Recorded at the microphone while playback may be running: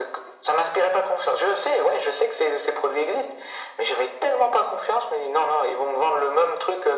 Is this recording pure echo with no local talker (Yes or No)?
Yes